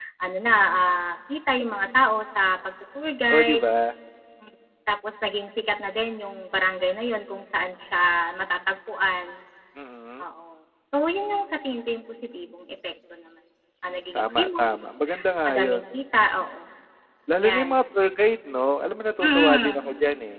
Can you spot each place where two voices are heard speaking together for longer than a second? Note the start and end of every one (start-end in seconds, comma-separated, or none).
14.2-15.8